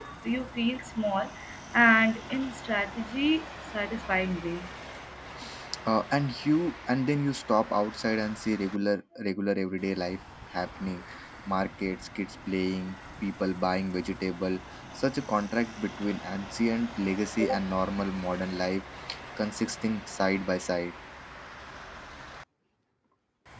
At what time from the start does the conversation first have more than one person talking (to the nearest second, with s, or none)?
none